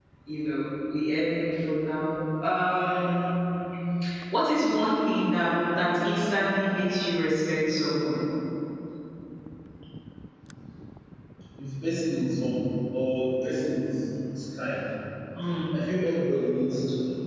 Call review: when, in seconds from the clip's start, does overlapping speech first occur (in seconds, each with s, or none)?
none